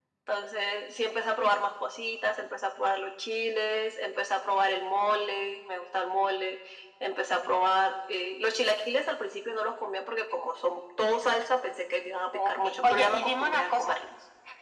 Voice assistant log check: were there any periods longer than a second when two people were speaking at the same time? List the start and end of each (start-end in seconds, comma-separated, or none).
12.3-13.9